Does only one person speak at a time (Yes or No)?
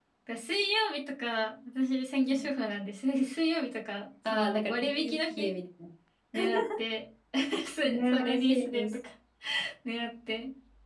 No